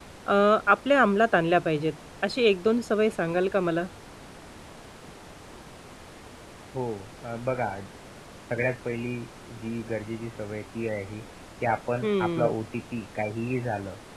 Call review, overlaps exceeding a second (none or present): none